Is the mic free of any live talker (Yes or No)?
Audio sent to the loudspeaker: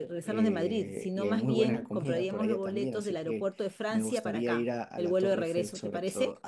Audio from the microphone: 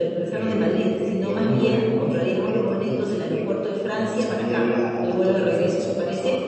Yes